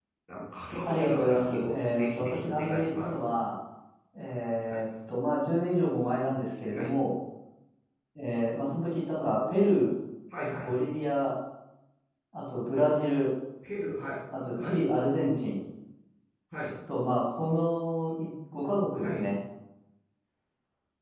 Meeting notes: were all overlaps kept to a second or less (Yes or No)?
No